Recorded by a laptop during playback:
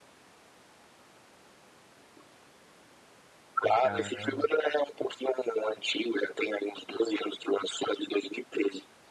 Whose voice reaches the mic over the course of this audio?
both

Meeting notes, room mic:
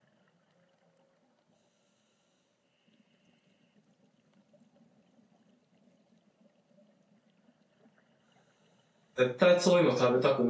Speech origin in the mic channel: user only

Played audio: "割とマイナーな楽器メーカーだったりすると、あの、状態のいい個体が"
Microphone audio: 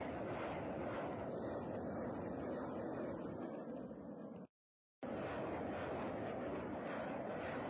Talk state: neither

